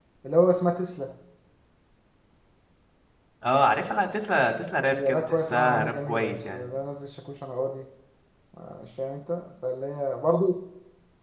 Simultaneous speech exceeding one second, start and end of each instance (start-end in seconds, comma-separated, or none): 4.9-6.7